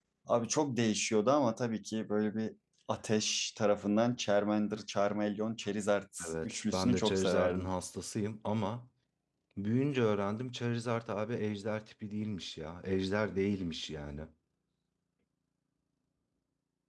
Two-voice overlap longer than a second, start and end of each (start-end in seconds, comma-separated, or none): 6.3-7.7